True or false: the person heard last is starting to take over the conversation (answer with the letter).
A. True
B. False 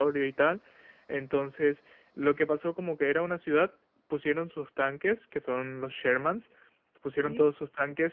B